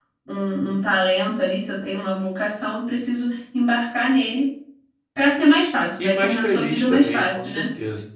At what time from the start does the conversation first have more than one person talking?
6.0 s

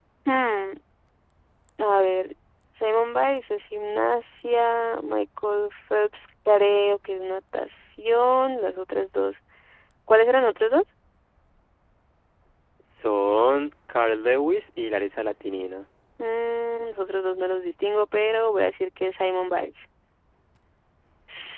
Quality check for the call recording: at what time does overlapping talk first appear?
none

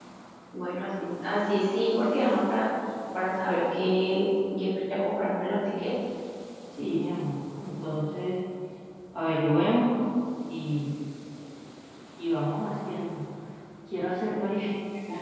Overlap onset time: none

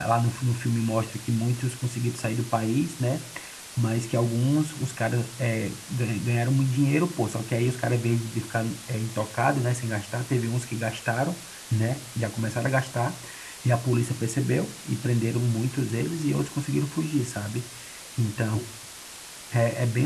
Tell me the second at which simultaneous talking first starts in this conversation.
none

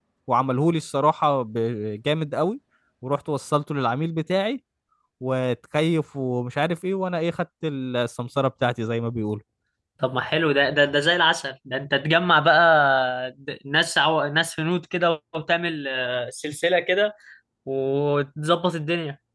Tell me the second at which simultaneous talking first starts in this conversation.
none

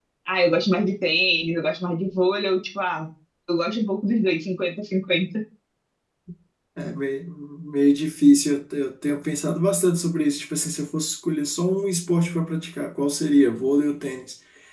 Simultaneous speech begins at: none

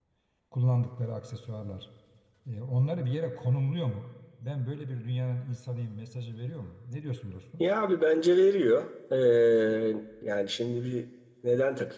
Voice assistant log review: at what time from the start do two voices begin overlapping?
none

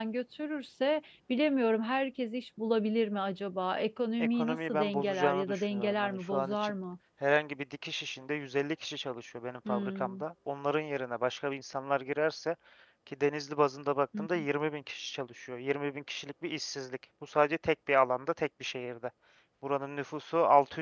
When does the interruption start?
4.2 s

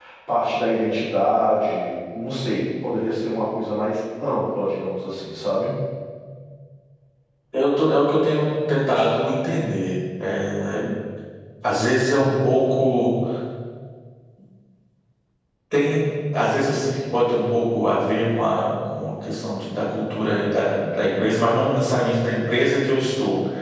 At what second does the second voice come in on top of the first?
none

